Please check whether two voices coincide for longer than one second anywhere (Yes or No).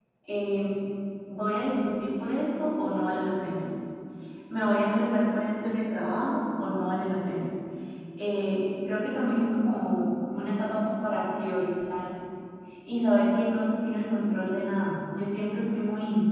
No